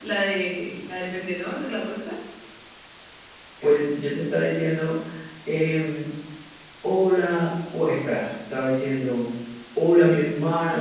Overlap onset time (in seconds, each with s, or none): none